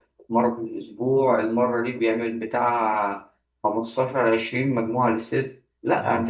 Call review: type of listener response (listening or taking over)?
listening